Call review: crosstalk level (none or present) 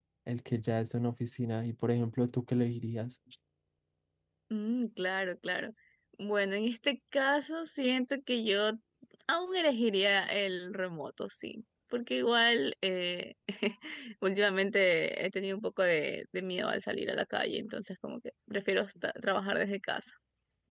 none